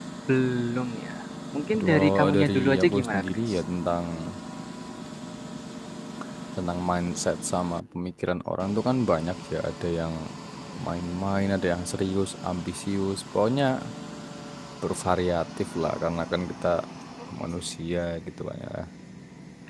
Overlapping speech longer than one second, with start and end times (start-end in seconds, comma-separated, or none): 1.7-3.6